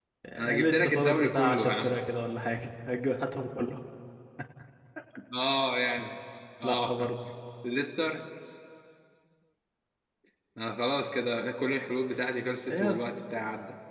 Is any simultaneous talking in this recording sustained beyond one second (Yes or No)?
Yes